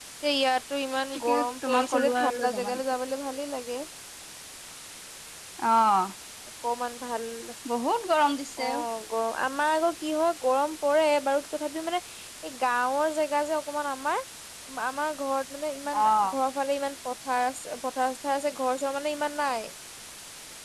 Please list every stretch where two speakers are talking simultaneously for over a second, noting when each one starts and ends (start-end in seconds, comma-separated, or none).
1.2-2.8